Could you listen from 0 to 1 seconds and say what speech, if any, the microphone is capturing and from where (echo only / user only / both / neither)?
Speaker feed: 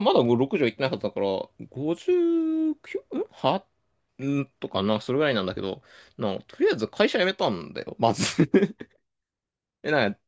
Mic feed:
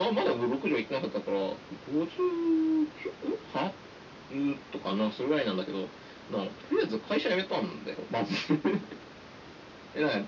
echo only